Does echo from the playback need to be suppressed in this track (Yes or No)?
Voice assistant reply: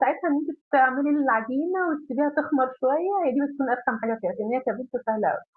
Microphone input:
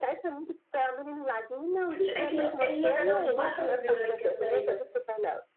Yes